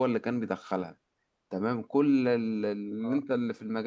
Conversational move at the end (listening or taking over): listening